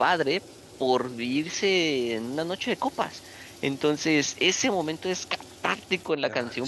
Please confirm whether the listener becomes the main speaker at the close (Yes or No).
No